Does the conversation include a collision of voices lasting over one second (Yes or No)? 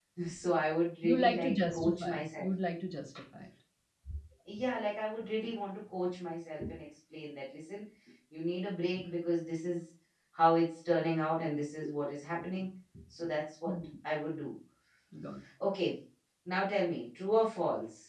Yes